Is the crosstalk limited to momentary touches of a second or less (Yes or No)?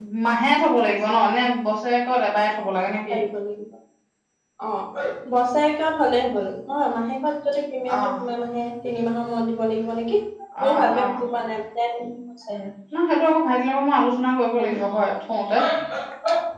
Yes